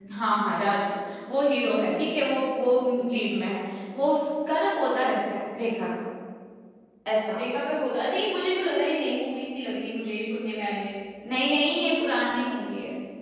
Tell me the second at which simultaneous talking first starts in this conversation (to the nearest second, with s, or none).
none